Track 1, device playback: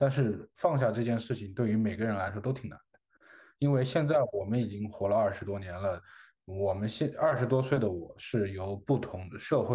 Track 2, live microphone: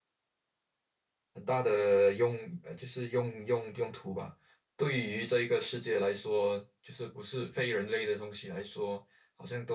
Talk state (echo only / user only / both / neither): user only